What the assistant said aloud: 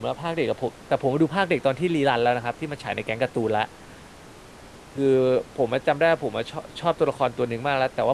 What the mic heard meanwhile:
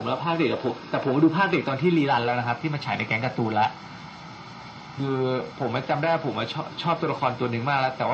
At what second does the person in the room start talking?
none

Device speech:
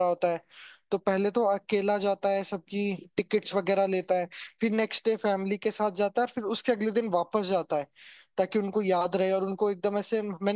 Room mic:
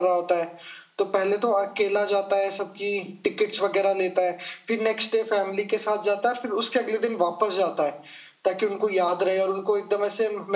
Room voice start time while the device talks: none

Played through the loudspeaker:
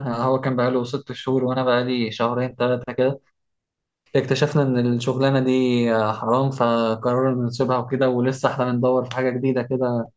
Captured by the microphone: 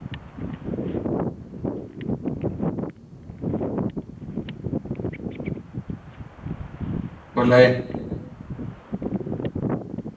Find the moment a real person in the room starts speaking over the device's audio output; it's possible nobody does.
7.3 s

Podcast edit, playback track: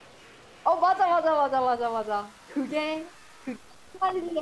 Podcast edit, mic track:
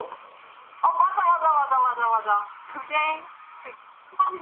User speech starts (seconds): none

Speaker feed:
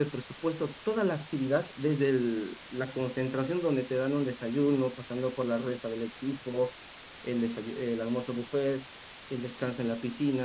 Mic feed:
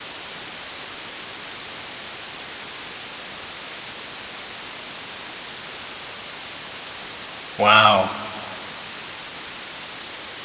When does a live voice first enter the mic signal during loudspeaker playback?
7.6 s

